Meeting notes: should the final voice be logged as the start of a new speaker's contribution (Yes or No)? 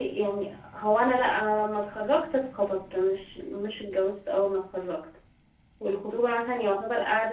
No